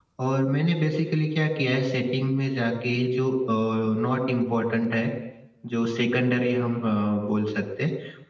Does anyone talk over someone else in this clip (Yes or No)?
No